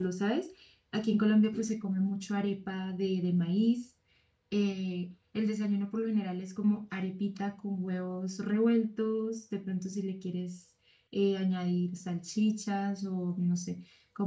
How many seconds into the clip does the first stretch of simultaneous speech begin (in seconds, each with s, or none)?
none